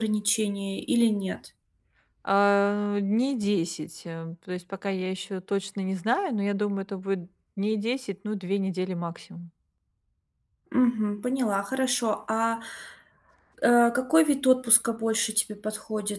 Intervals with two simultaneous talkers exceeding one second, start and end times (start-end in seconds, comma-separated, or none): none